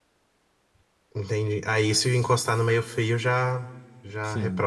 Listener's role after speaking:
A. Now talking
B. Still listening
A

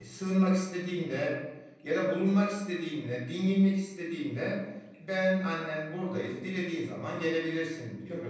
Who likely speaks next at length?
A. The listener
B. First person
B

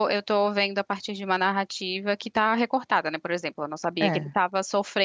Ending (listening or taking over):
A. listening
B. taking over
A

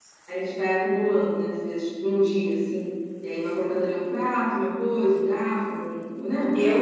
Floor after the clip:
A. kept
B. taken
B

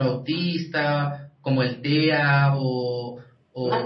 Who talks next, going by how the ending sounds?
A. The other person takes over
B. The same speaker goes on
A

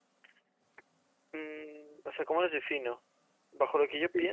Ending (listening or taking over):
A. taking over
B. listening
A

